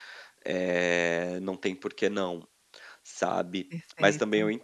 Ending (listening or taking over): listening